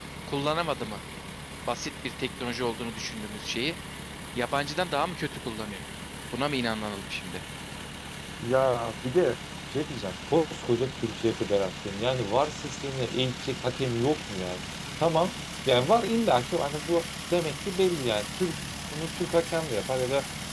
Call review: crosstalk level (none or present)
none